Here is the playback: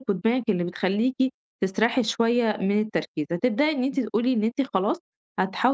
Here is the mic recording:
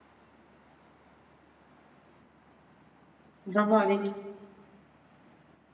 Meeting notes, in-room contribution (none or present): present